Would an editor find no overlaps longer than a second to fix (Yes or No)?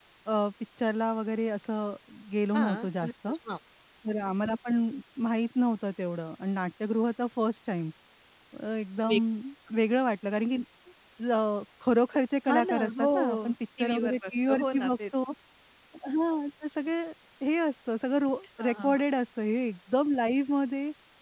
No